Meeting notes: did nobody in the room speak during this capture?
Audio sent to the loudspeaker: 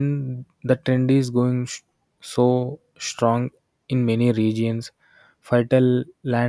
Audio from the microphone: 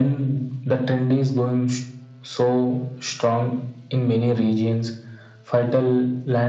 Yes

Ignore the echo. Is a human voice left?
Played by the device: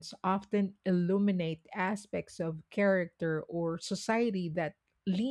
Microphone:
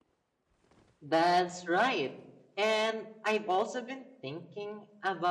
Yes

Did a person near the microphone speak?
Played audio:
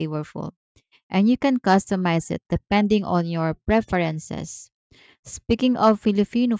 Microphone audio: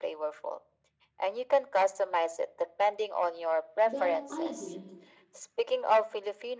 Yes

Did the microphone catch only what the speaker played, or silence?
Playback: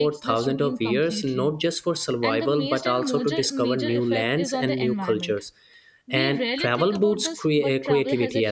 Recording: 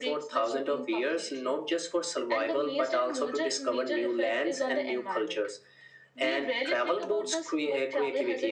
Yes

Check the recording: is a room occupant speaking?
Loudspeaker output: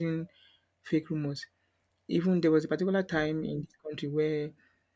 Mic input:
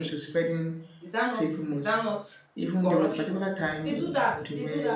Yes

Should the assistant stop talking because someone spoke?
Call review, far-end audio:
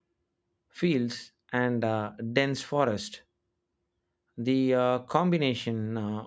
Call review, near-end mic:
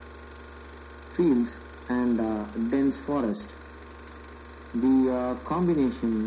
No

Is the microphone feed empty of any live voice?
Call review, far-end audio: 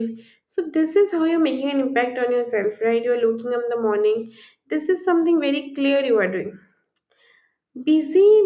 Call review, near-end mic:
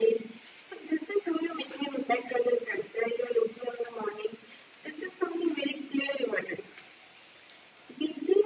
Yes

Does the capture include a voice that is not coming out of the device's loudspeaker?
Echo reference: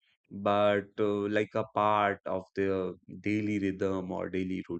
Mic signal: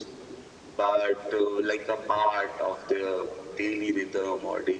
No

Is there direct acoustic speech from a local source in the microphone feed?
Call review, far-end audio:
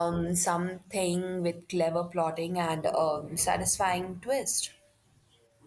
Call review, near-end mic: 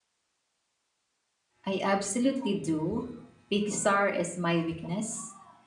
Yes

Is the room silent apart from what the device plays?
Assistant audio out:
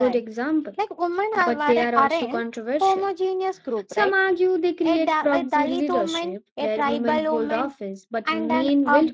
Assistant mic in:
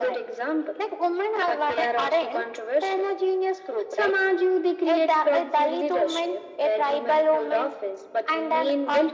Yes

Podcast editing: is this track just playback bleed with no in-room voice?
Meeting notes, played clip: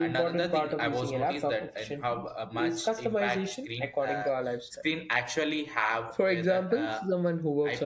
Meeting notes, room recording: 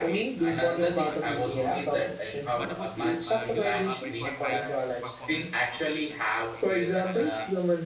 No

